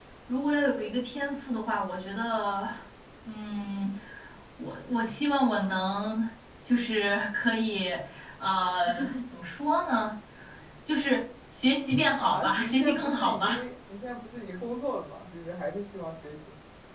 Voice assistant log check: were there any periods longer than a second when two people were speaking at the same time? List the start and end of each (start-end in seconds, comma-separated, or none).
12.2-13.6